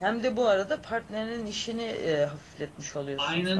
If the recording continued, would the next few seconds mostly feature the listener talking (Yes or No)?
Yes